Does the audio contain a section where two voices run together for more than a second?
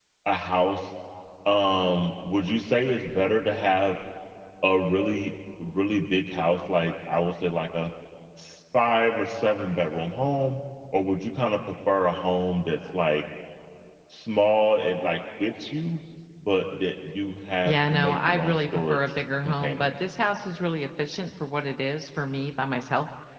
Yes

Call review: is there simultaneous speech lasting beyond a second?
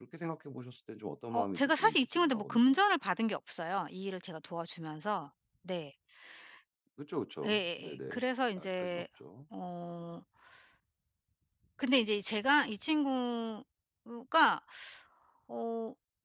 Yes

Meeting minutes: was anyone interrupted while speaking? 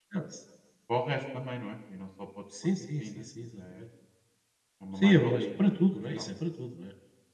Yes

